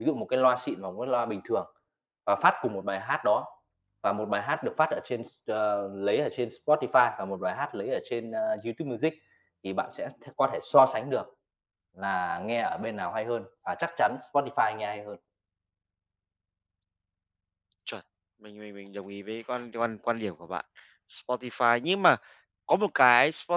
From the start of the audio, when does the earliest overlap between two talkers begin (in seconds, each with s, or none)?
none